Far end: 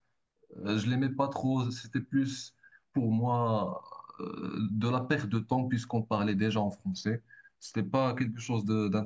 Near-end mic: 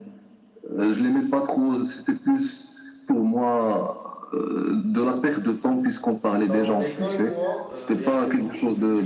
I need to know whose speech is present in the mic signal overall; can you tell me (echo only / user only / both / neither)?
both